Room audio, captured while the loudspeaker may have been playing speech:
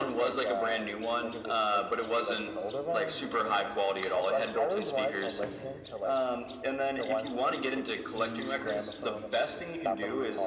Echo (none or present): present